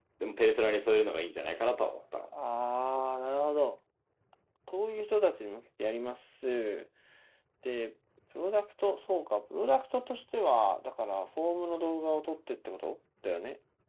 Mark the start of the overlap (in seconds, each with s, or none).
none